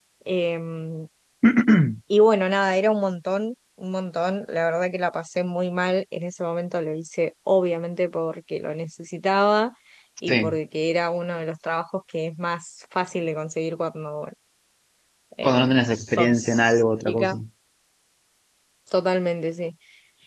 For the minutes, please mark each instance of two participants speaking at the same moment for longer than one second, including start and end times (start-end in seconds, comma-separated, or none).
15.4-17.4